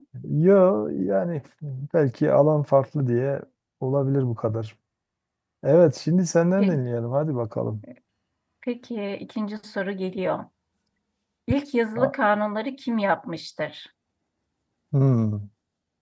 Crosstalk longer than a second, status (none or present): none